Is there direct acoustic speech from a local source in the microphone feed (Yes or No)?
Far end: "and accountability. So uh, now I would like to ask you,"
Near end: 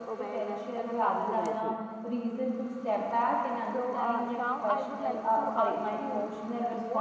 Yes